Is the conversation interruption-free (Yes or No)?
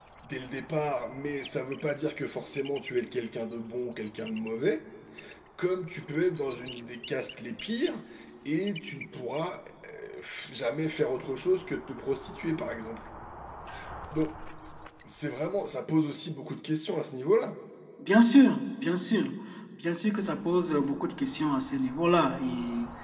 Yes